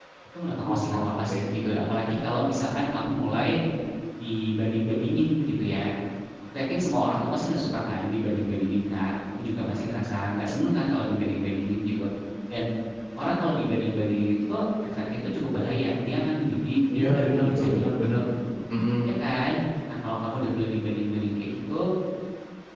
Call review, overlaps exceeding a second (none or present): present